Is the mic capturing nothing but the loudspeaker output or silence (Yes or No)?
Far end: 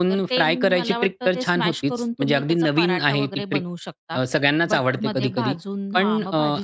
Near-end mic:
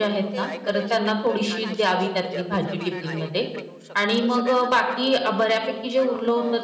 No